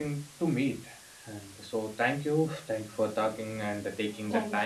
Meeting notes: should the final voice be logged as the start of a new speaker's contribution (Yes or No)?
No